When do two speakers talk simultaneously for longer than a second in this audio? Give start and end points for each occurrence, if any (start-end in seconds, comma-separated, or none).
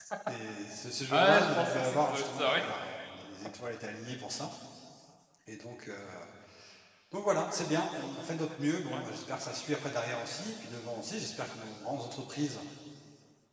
1.1-2.6